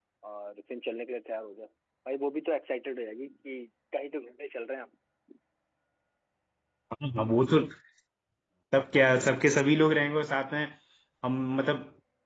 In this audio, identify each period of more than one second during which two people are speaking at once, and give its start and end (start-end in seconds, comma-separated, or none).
none